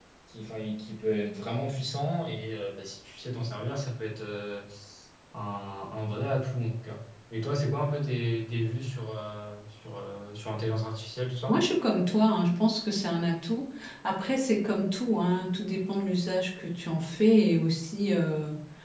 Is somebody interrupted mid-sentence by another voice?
No

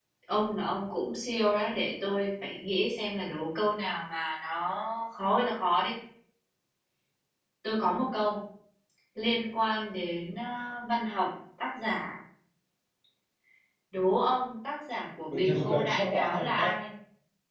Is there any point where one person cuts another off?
Yes, from 15.3 s

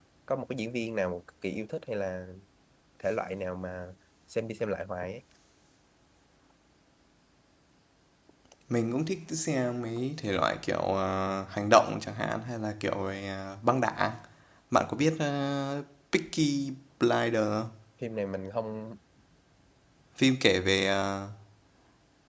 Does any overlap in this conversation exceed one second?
No

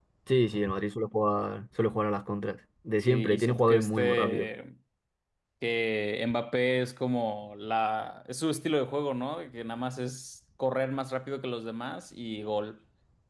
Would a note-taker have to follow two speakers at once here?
Yes, from 3.0 s

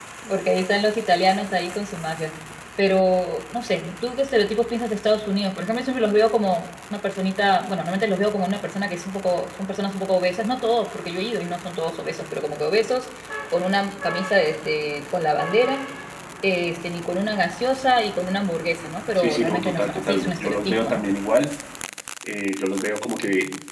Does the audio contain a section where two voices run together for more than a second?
Yes, from 19.2 s

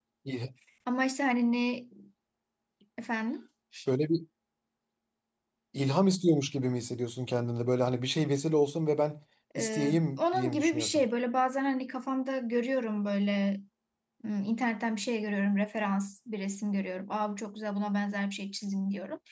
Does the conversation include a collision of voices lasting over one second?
Yes, from 9.6 s

